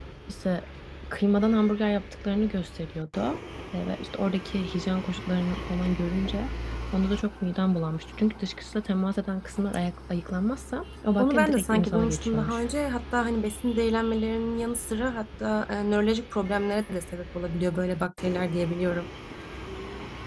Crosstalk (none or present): present